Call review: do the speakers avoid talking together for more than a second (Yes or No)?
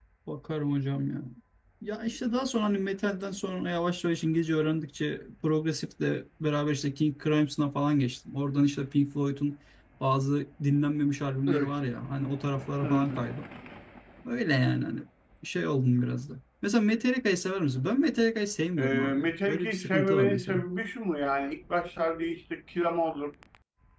No